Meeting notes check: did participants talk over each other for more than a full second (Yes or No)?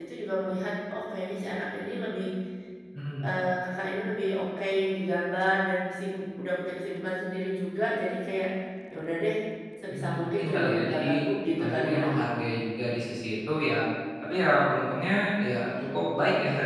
Yes